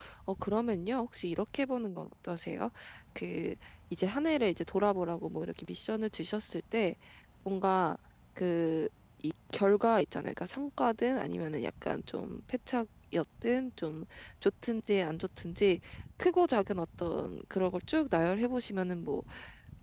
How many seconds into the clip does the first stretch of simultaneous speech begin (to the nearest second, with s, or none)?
none